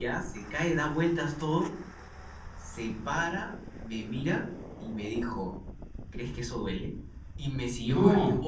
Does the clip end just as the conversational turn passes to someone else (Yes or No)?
No